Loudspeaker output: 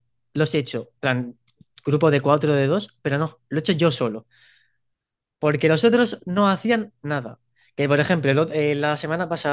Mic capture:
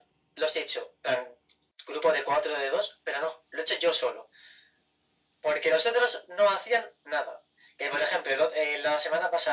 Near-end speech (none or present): none